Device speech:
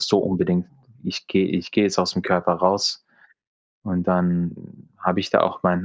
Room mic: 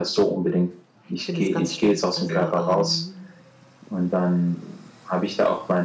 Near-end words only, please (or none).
ich finde das ganz schlimm. Also, ähm,